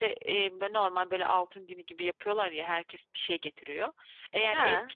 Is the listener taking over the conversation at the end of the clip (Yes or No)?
No